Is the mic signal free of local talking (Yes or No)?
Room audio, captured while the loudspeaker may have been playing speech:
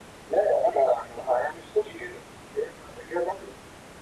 Yes